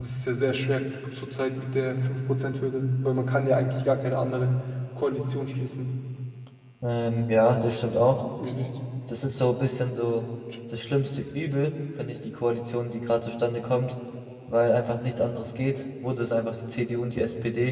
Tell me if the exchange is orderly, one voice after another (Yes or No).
Yes